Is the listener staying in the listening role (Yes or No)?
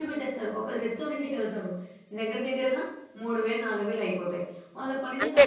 Yes